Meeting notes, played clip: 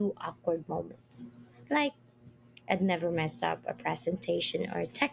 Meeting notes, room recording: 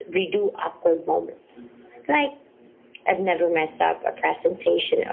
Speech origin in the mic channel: echo only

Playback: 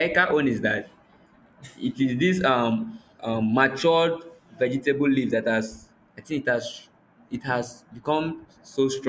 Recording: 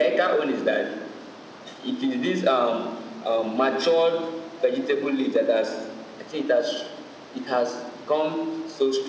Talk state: echo only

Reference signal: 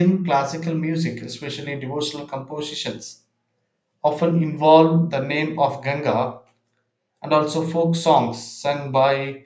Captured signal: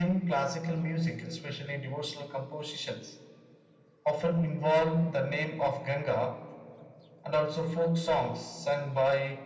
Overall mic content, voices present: echo only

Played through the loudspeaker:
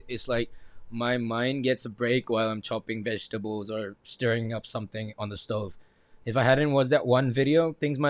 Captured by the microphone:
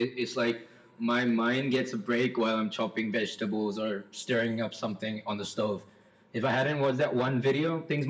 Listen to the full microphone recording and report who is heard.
echo only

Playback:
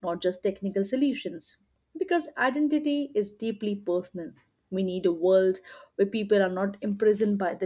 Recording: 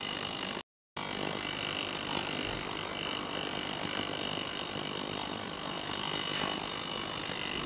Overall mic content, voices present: neither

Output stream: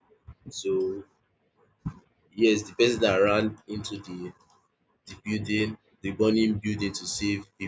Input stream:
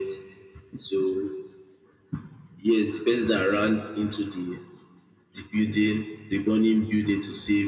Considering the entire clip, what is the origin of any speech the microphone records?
echo only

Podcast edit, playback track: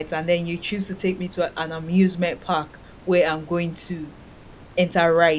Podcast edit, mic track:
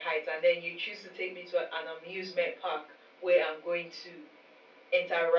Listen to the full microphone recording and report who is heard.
echo only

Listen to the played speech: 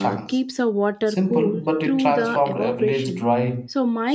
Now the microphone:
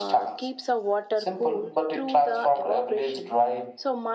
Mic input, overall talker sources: echo only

